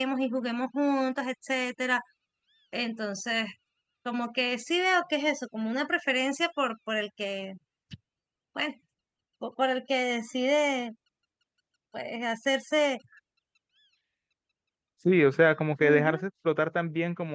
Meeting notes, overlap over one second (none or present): none